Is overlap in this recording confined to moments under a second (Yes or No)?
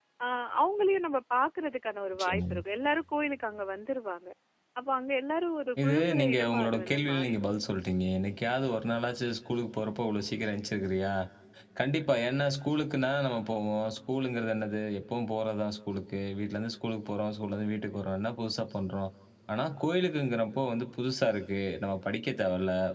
No